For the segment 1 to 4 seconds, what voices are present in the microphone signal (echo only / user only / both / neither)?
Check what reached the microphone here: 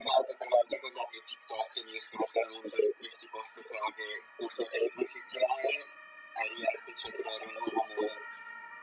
echo only